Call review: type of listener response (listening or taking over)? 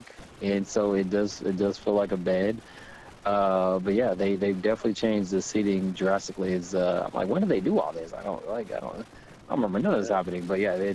listening